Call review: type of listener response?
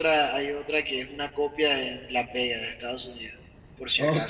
taking over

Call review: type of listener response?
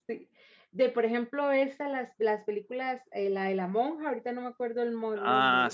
taking over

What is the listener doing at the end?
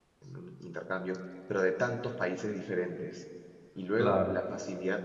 listening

